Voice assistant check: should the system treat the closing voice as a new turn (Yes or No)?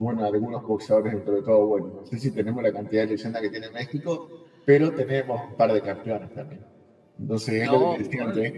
No